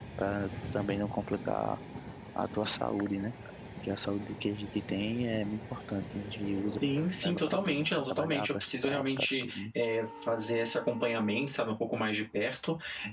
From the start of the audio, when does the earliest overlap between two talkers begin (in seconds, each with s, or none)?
7.2 s